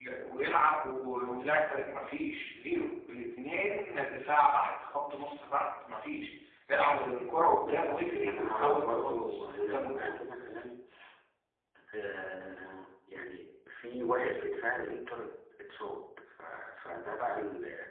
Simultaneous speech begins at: 7.6 s

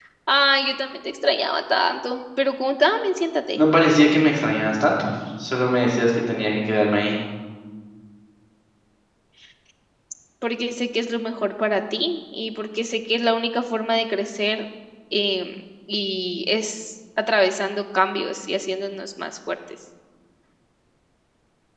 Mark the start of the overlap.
none

